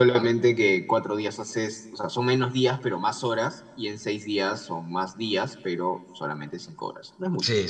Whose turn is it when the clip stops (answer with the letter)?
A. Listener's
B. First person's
A